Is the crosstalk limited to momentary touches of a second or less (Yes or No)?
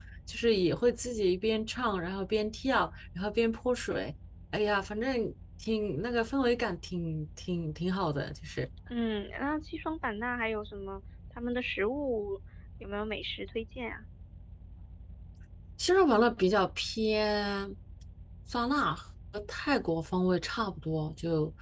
Yes